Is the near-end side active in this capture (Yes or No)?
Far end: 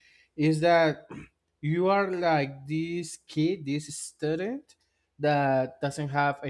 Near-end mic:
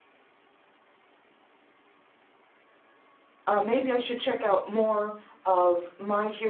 Yes